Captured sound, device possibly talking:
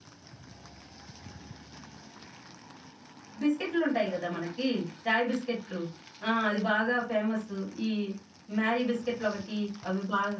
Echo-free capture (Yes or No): Yes